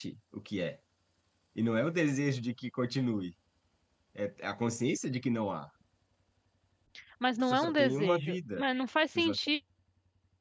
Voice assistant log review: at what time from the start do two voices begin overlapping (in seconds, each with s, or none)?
7.4 s